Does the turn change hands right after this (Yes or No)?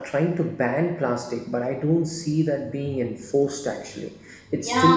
Yes